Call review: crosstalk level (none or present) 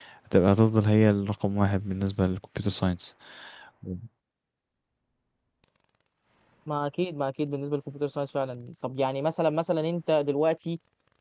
none